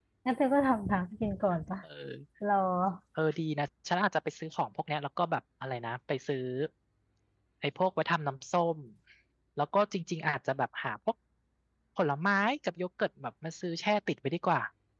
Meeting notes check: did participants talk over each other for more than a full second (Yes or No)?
No